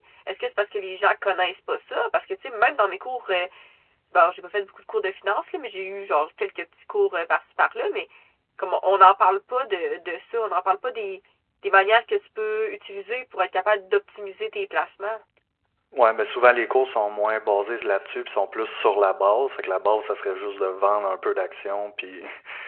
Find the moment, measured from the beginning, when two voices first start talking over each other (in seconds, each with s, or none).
none